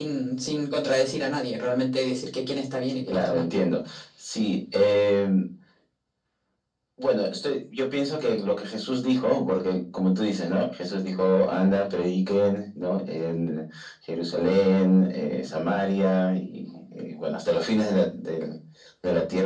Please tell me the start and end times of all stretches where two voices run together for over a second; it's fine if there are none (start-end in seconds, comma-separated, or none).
none